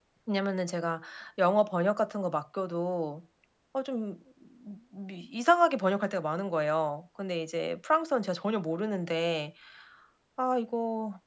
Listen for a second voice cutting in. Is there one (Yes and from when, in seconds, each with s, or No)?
No